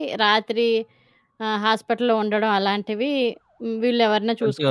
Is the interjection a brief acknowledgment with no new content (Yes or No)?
No